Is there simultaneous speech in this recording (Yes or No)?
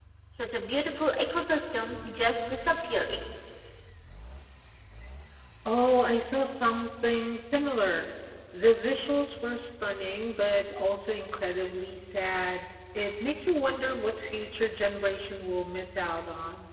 No